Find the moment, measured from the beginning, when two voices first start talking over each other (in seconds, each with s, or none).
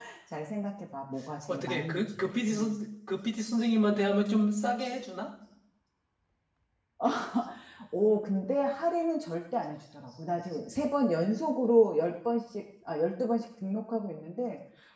1.5 s